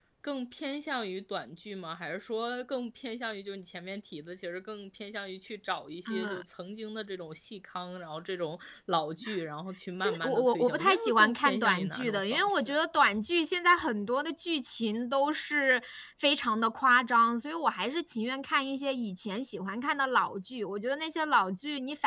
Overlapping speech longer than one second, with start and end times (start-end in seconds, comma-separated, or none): 10.0-12.8